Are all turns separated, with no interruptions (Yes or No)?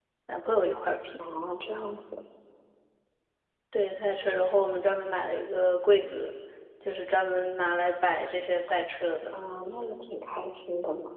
Yes